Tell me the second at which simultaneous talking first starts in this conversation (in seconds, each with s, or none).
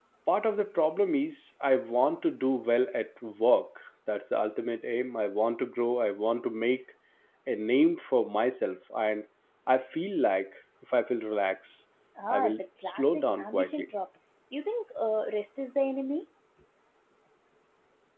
12.3 s